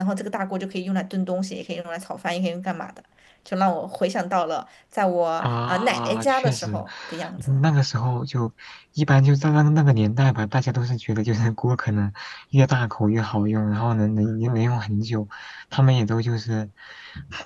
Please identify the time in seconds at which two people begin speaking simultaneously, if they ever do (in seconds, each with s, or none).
5.4 s